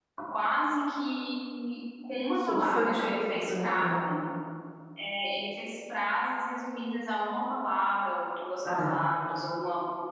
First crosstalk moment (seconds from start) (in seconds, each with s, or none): 2.4 s